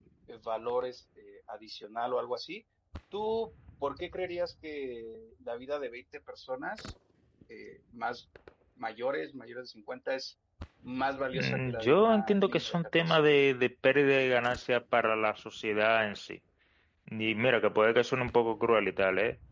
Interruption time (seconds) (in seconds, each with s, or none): 11.3 s